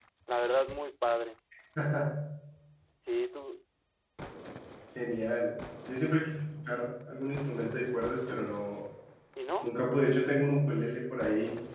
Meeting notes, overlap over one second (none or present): none